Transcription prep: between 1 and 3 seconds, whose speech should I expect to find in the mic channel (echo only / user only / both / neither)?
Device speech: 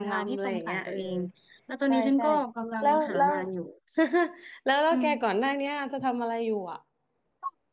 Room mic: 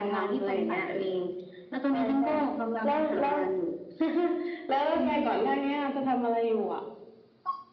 echo only